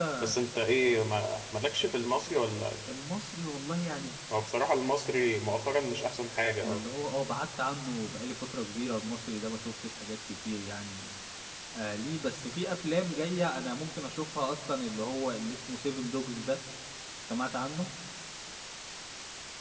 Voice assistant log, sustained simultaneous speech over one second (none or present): none